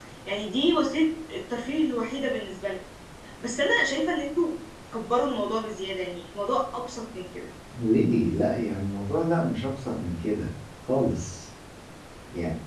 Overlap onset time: none

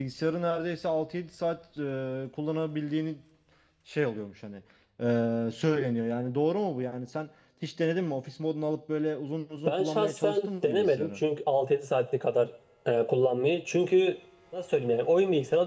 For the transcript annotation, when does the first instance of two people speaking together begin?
9.7 s

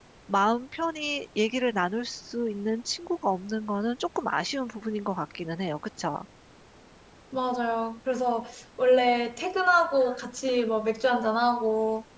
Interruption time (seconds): none

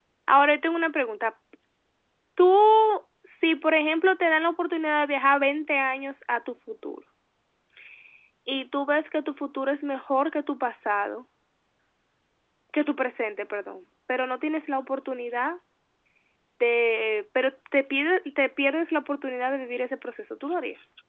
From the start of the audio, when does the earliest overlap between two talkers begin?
none

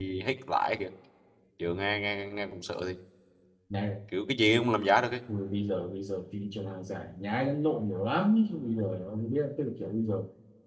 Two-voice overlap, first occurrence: none

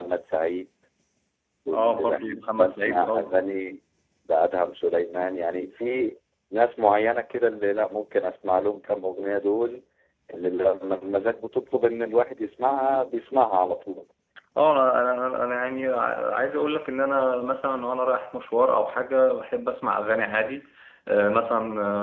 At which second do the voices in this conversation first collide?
1.7 s

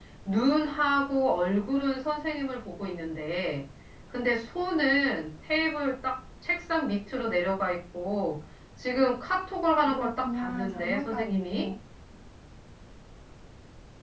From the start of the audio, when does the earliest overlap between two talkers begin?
9.9 s

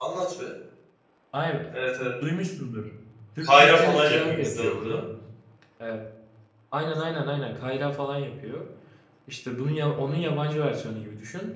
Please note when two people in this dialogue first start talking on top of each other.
3.4 s

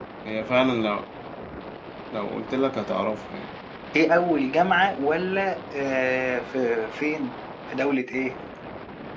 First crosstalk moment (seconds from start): none

